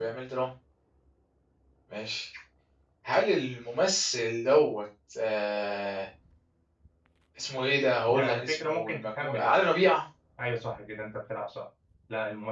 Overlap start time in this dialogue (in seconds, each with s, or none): 8.1 s